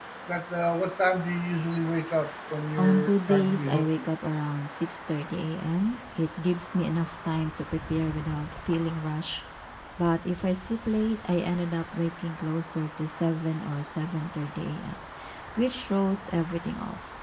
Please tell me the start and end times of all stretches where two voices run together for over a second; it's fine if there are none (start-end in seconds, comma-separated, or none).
2.8-4.0